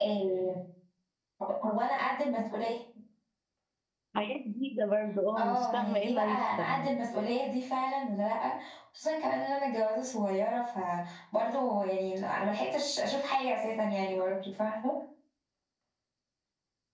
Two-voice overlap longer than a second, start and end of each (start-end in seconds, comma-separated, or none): 5.4-6.9